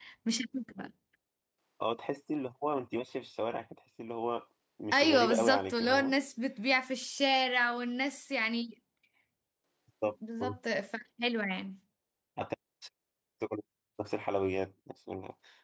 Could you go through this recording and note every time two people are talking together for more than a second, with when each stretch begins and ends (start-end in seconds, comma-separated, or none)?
4.9-6.1